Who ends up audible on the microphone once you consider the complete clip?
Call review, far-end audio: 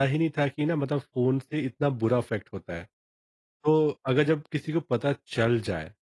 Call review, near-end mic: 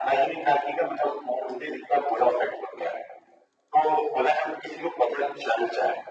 echo only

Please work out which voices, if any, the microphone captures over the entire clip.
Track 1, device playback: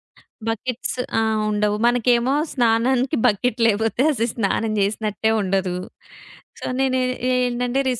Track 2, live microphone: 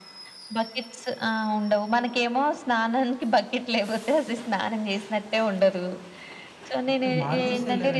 both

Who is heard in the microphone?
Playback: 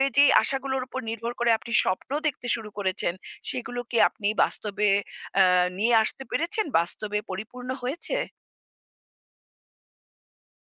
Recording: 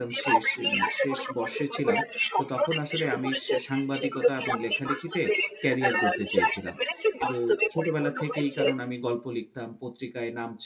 both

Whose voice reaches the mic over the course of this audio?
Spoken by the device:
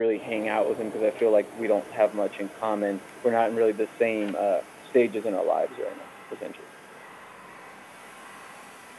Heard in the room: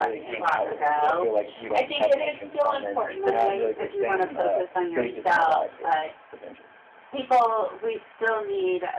both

